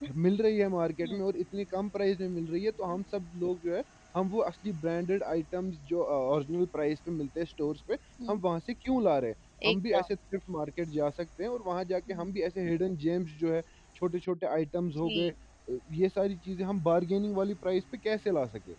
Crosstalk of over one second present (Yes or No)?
No